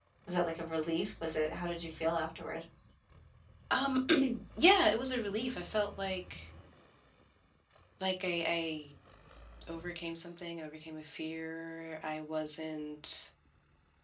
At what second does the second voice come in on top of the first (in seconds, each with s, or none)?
none